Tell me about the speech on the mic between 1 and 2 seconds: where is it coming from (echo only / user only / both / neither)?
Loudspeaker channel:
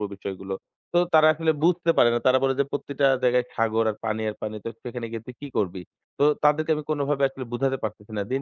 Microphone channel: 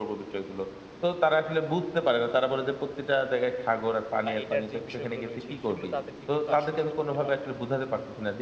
echo only